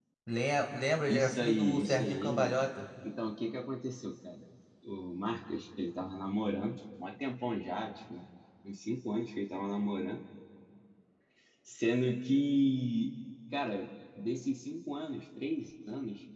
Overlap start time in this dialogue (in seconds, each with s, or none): 1.1 s